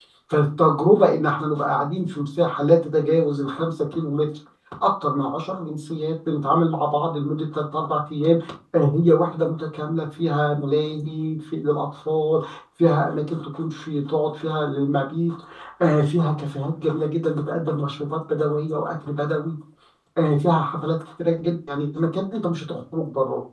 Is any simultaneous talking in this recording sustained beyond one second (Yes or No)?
No